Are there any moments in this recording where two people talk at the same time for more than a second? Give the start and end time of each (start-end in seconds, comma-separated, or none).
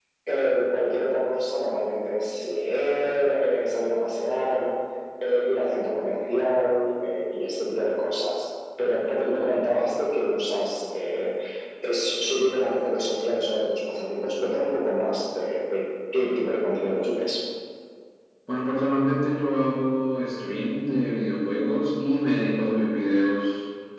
none